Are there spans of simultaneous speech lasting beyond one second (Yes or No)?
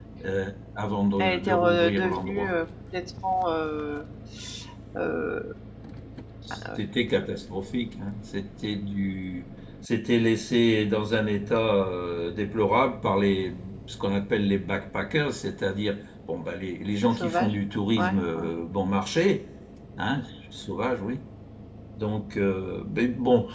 Yes